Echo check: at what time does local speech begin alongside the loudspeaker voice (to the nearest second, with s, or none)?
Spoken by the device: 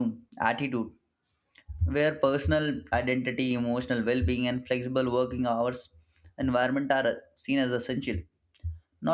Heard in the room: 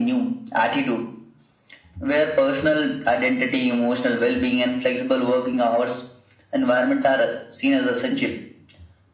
none